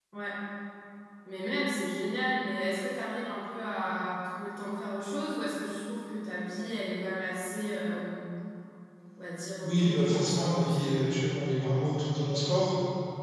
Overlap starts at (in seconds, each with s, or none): 9.6 s